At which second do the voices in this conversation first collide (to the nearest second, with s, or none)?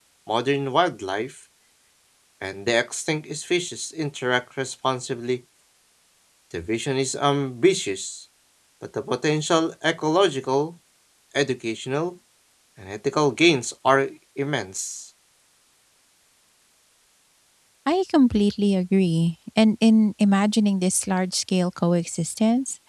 none